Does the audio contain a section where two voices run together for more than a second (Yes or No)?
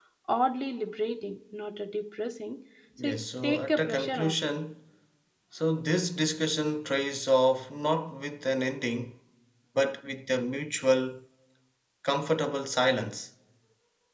Yes